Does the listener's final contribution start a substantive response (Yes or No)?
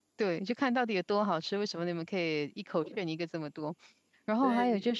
No